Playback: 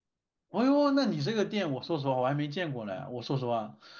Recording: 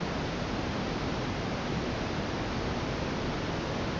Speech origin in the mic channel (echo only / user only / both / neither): neither